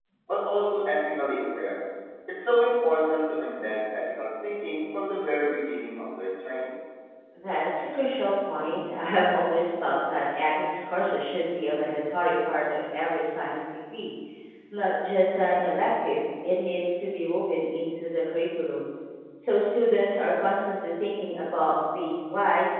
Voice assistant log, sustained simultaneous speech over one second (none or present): none